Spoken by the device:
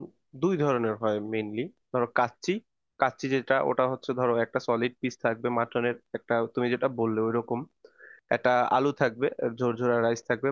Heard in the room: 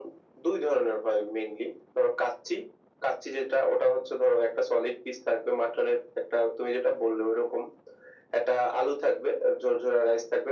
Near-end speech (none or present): none